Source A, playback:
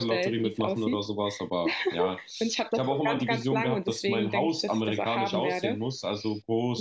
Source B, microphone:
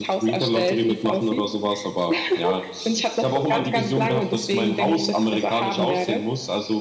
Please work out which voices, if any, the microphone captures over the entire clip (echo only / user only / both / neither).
both